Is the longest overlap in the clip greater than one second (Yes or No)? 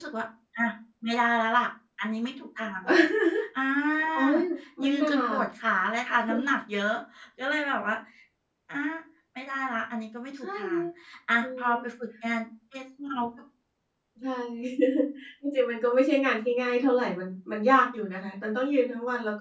No